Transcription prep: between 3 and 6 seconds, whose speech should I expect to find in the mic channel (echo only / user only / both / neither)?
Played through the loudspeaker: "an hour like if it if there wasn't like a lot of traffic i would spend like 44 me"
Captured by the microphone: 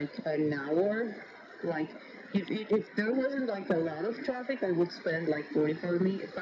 echo only